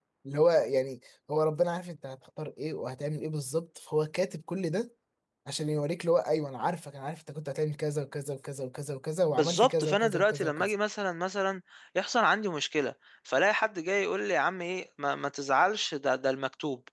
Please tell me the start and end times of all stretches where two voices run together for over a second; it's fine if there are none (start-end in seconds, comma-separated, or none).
9.3-10.7